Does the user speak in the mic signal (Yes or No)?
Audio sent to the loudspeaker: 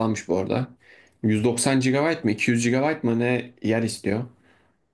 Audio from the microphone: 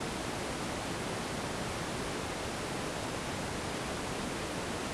No